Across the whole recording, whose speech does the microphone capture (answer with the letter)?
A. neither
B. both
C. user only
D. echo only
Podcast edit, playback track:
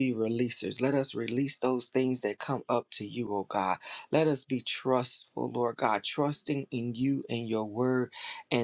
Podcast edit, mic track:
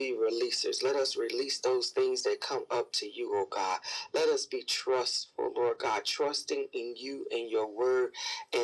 D